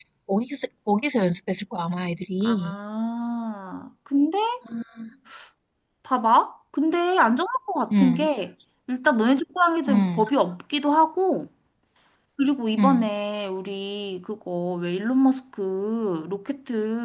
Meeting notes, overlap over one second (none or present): none